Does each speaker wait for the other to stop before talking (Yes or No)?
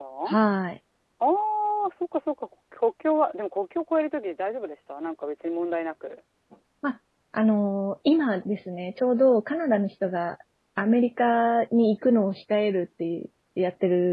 Yes